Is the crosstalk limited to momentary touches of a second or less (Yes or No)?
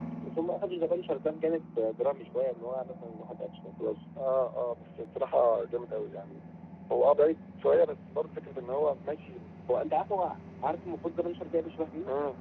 Yes